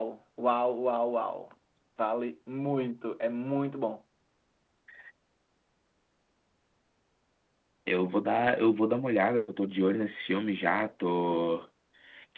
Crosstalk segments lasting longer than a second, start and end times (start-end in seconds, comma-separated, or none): none